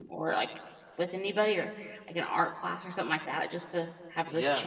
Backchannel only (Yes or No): No